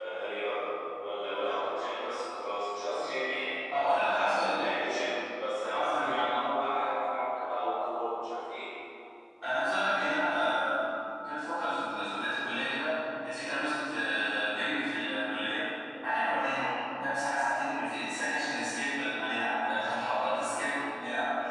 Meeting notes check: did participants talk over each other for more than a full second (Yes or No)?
No